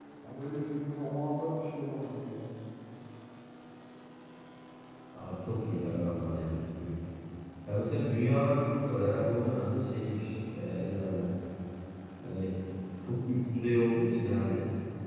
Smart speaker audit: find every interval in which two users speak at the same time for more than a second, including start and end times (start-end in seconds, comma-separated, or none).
none